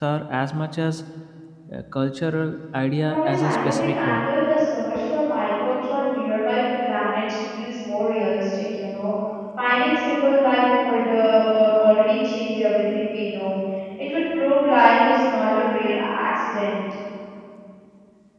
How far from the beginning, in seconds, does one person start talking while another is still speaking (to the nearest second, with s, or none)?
3 s